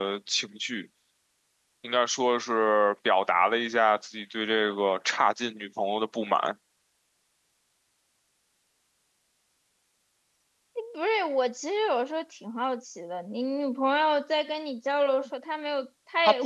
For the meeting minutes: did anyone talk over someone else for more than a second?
No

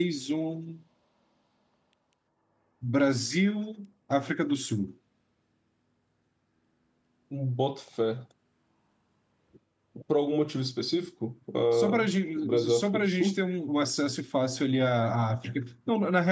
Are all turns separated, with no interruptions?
No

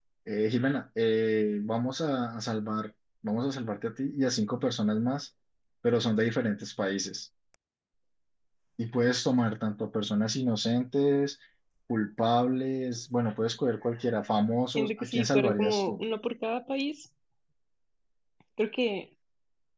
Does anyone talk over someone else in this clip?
Yes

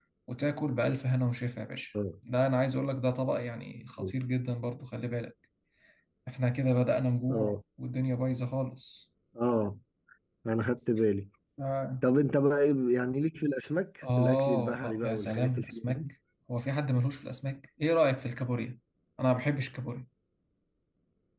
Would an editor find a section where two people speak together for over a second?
Yes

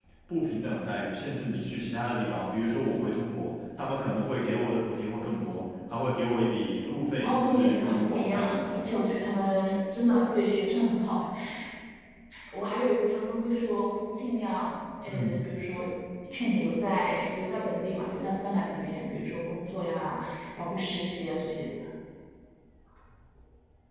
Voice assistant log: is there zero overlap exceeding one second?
No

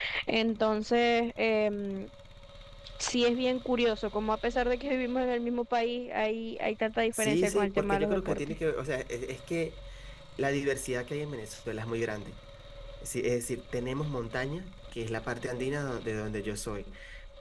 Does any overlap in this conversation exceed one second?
Yes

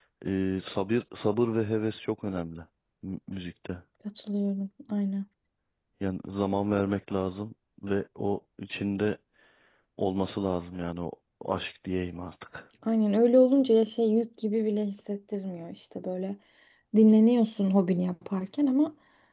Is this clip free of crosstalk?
Yes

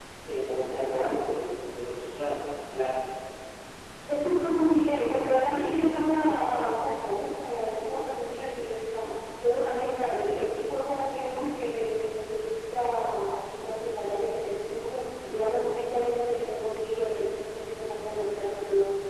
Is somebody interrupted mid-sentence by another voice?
No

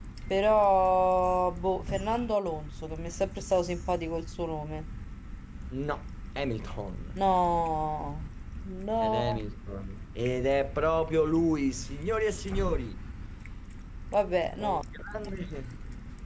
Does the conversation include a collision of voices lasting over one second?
No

